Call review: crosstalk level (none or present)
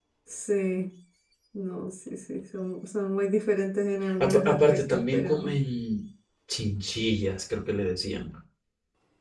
present